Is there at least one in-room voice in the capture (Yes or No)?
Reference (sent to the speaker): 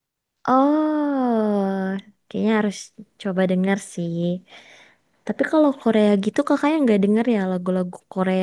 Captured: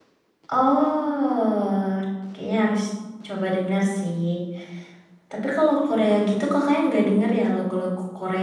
No